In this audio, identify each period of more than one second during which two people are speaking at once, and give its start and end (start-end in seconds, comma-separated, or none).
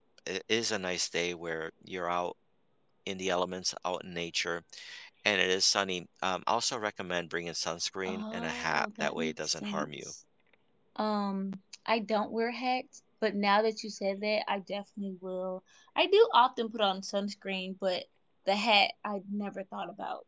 8.1-10.1